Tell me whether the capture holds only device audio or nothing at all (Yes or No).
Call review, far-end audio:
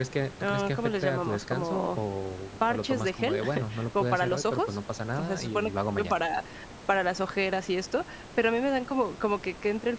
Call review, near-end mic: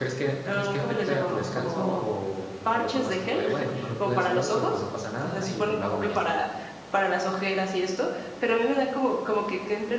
Yes